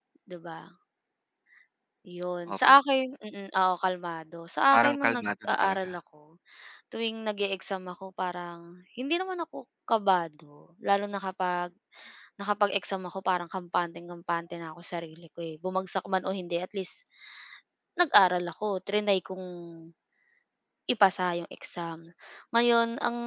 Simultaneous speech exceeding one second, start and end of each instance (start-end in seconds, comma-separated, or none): 4.7-5.9